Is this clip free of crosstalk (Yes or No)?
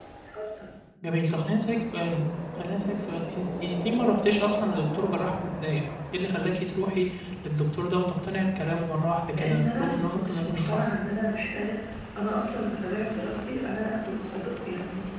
No